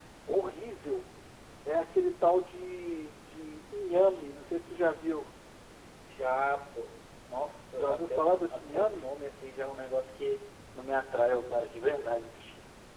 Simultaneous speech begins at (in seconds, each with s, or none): 7.8 s